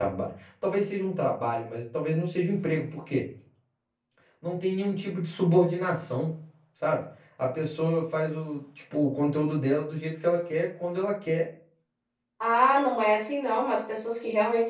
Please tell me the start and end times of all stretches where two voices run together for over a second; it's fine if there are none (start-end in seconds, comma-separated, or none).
none